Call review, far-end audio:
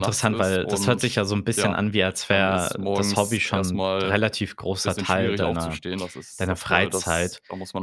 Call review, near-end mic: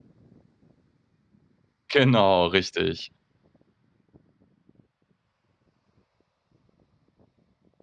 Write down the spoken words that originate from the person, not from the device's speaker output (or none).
Genau, richtig.